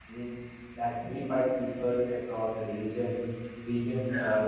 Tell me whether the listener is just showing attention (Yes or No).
Yes